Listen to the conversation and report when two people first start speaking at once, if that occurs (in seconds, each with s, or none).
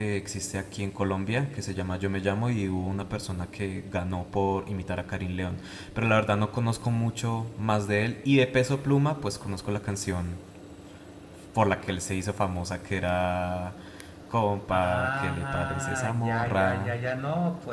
14.7 s